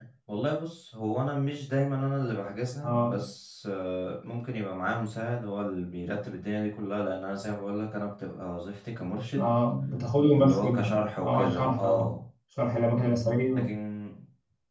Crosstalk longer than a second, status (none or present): present